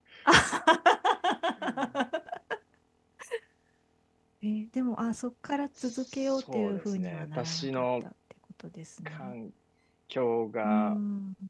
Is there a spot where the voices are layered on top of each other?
Yes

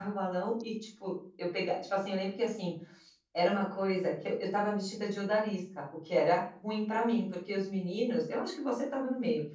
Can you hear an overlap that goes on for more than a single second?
No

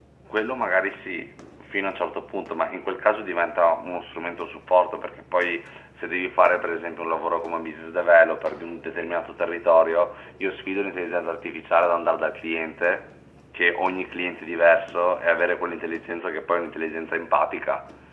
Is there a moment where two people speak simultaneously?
No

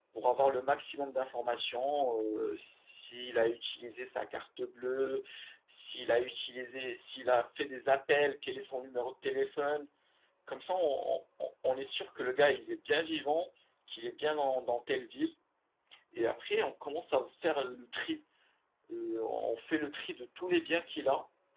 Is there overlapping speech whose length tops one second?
No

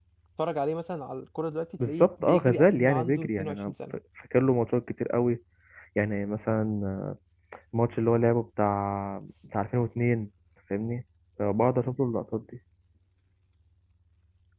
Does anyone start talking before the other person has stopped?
Yes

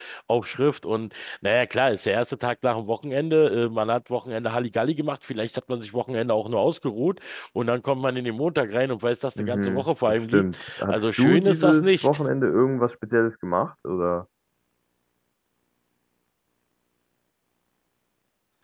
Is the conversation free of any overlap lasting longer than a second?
No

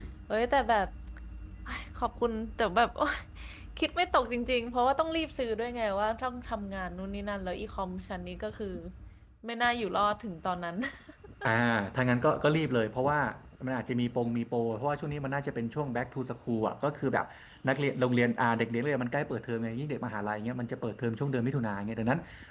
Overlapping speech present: No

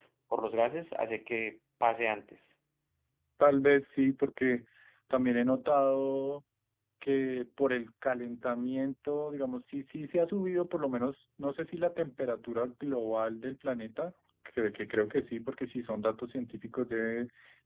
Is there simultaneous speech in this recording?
No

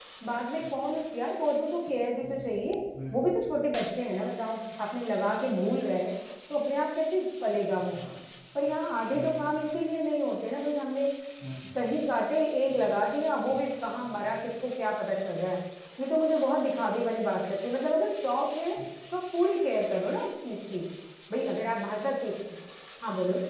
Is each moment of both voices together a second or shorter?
Yes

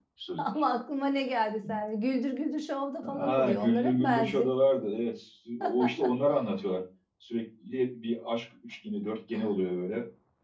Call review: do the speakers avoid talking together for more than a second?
No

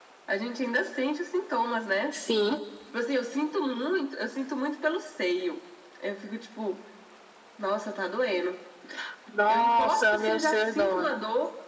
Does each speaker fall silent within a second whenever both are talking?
No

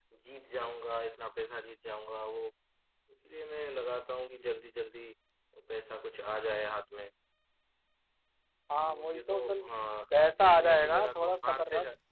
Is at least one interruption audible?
Yes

